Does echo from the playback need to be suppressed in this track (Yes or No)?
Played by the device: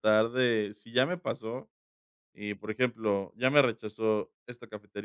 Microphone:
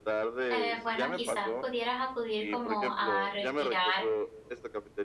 Yes